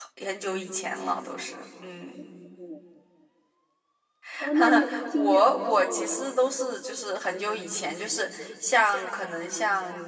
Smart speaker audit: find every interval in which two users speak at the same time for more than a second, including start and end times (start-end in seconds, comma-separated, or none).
4.5-6.3